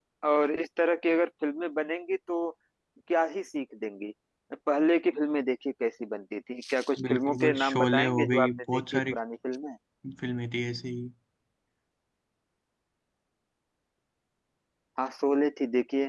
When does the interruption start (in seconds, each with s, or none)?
7.0 s